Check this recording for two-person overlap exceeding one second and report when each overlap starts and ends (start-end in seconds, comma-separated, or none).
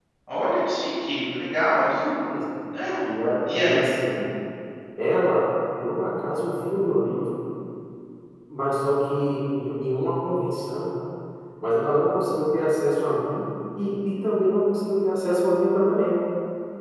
none